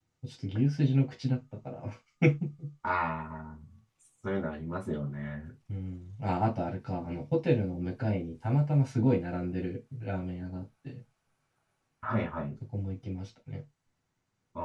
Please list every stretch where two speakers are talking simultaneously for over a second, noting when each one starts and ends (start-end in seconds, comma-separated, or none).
none